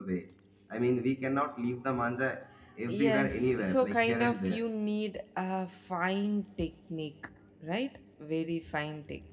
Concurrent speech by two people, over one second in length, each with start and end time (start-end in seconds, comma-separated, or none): 2.9-4.6